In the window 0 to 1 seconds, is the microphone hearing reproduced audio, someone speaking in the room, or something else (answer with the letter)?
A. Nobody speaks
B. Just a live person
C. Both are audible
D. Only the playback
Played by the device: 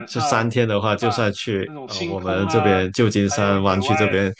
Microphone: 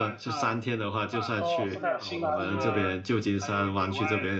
D